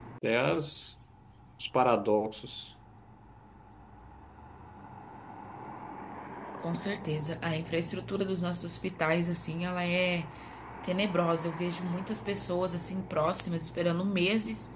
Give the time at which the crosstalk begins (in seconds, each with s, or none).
none